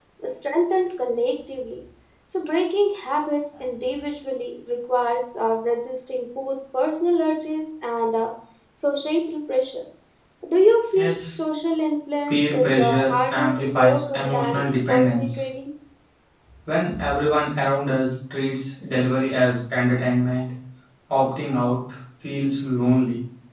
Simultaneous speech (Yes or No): Yes